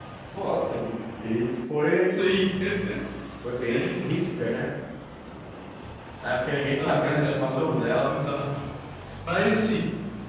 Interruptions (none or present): present